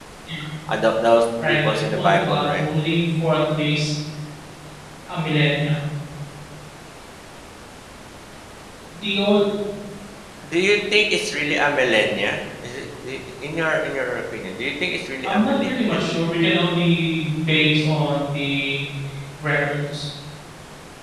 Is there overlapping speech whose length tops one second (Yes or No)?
Yes